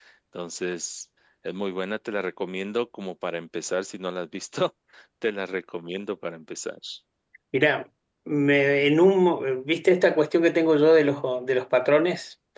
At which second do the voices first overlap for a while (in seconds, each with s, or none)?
none